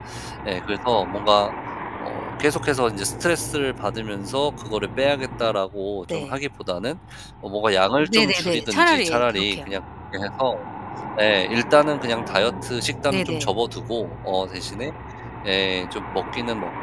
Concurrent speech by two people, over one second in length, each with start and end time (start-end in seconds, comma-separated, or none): 8.0-9.7